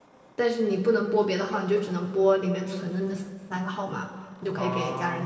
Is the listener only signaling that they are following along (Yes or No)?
Yes